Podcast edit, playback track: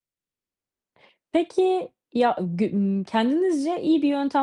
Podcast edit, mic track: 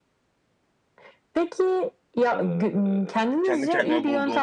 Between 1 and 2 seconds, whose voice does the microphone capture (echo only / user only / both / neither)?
echo only